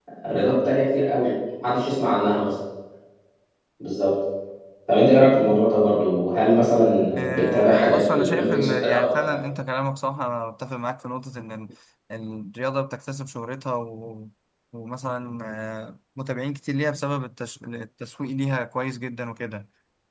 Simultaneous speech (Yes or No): Yes